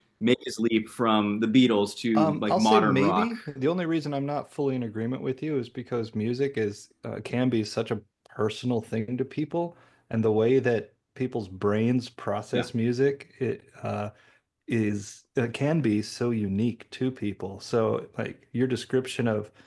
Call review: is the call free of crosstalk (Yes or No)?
No